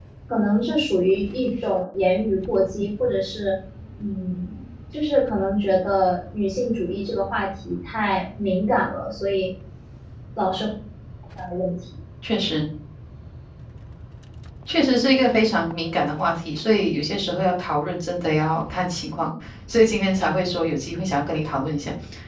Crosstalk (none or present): none